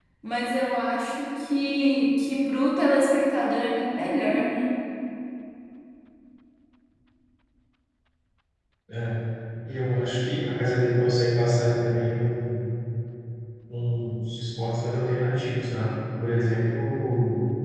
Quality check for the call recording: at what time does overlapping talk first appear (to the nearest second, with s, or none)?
none